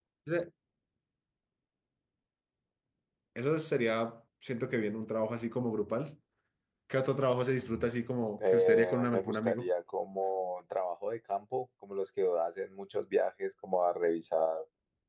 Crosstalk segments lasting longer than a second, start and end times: 8.5-9.7

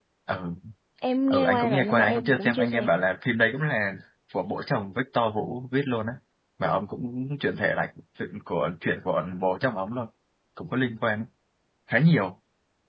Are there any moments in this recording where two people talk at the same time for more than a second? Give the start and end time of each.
1.3-2.9

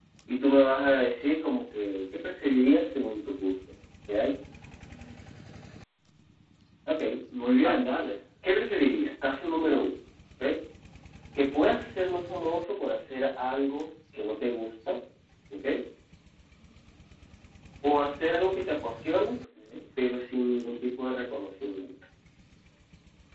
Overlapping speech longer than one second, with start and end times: none

